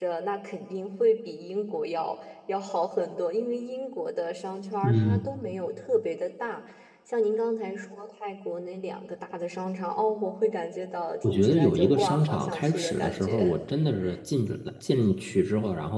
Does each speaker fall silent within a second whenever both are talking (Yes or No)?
No